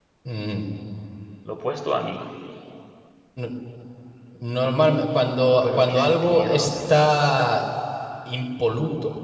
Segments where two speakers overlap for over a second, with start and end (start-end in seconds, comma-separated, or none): 5.5-6.7